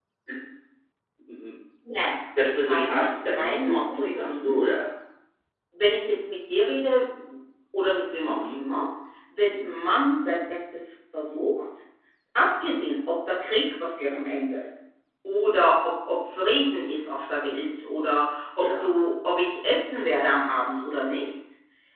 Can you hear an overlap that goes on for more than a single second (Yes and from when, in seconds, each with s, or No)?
Yes, from 2.4 s